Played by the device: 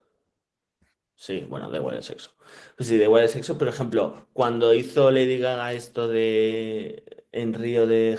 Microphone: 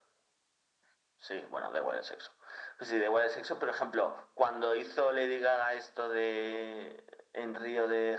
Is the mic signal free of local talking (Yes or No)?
Yes